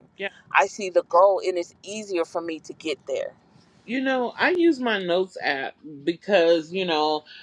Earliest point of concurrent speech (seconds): none

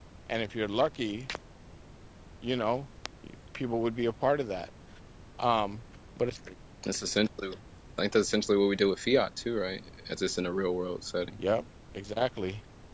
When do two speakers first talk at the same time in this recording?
none

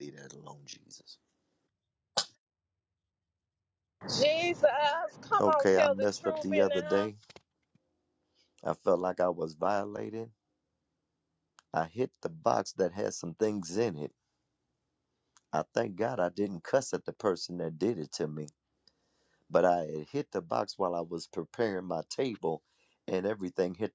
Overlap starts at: 5.4 s

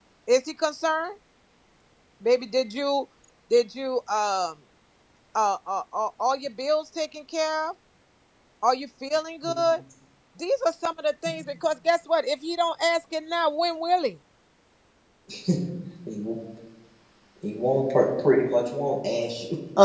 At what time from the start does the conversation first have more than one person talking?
none

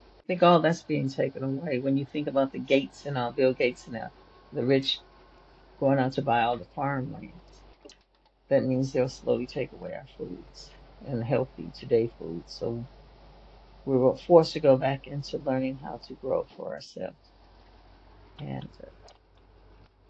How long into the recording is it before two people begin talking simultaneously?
none

